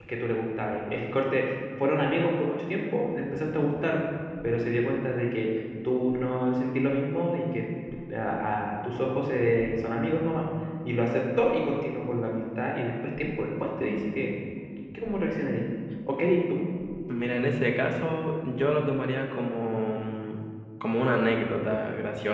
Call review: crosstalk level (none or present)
none